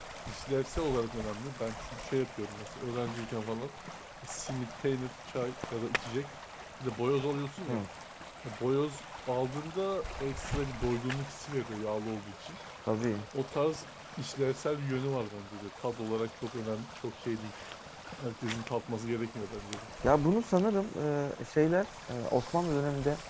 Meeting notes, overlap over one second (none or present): none